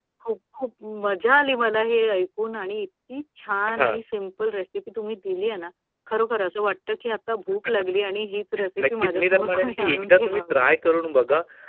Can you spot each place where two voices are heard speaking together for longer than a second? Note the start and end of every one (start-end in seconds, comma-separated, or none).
8.8-10.6